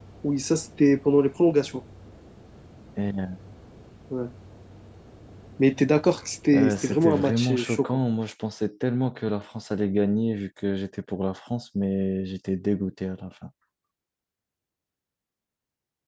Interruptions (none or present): present